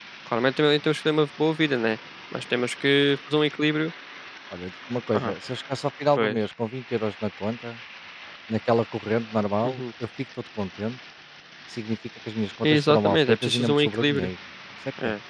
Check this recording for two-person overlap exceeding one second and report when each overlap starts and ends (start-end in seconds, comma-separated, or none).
12.6-14.3